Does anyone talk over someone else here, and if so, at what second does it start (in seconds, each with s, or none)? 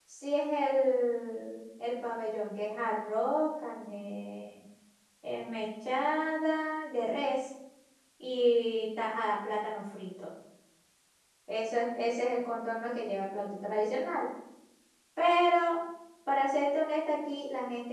none